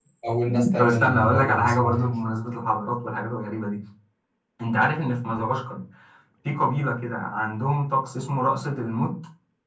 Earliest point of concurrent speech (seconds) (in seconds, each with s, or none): 0.8 s